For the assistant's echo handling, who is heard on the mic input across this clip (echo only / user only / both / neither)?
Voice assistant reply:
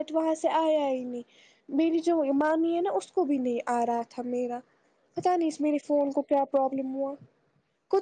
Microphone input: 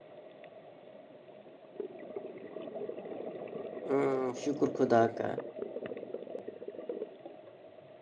user only